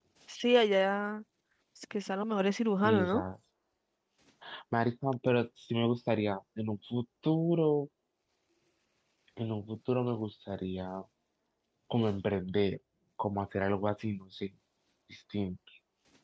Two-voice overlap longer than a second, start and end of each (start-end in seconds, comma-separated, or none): none